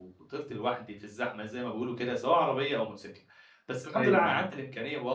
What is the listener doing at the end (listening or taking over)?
listening